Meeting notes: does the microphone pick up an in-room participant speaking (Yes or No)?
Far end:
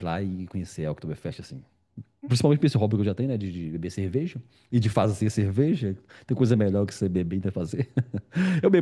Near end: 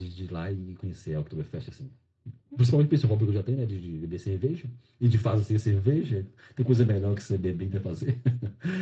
No